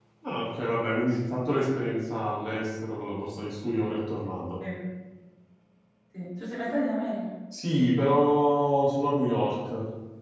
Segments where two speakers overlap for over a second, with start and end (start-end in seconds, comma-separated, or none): none